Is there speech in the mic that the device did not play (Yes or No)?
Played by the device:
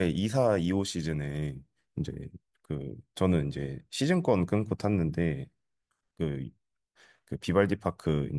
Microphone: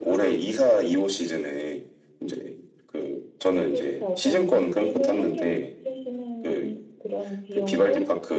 Yes